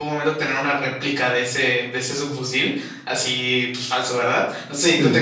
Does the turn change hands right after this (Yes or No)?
No